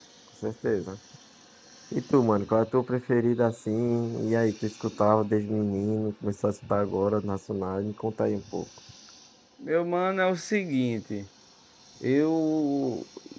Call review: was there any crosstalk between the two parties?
No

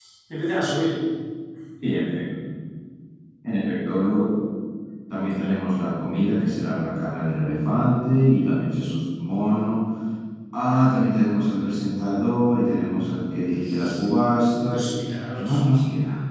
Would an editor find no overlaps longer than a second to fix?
Yes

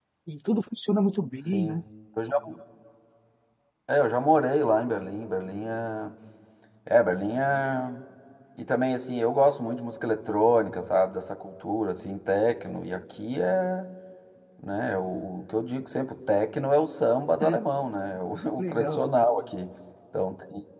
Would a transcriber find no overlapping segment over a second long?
Yes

